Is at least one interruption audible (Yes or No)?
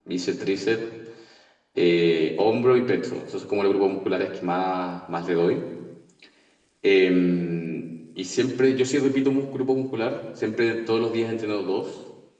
No